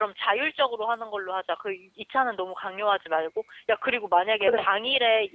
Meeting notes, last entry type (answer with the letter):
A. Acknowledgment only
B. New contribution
A